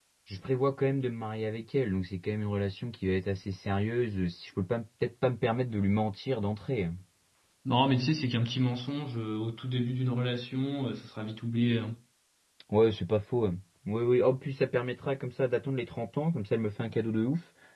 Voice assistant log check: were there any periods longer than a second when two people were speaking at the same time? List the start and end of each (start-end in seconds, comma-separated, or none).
none